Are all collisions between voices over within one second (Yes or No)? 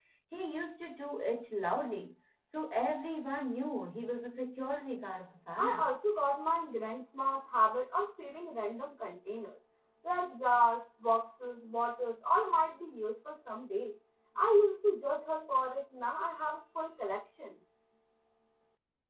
Yes